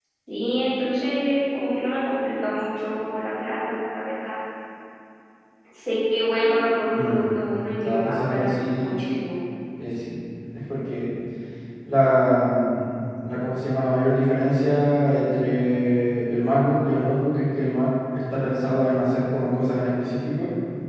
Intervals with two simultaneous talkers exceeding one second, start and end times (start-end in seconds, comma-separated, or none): 7.8-9.0